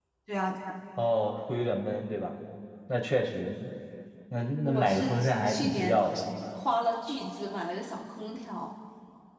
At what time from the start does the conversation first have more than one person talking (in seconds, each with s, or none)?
4.7 s